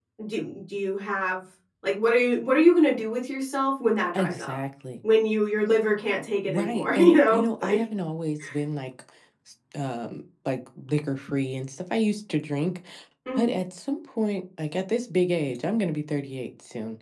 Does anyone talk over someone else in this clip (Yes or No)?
Yes